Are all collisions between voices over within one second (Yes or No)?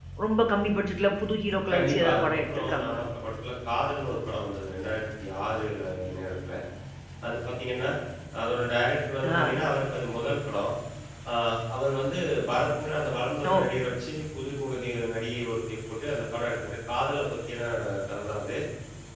No